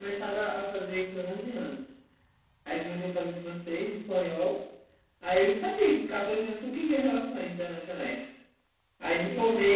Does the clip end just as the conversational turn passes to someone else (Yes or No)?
No